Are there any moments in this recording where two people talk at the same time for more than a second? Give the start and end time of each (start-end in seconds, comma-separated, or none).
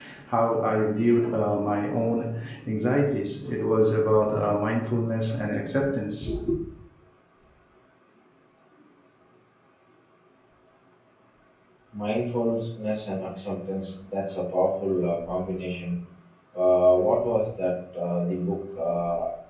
none